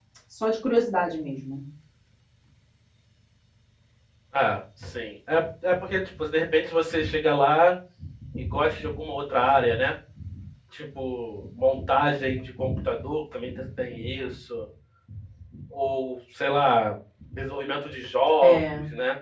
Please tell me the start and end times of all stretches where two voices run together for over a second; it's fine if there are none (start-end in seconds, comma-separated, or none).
none